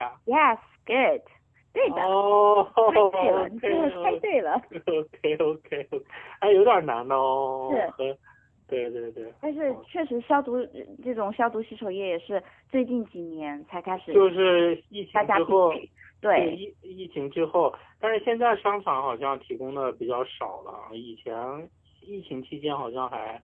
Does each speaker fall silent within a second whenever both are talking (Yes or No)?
No